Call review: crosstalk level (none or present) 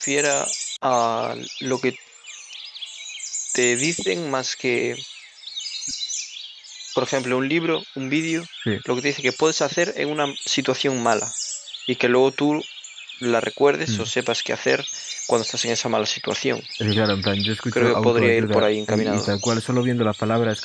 present